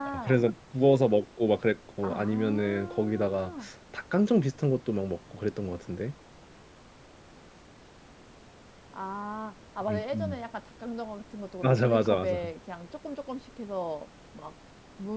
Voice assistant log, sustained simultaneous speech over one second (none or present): present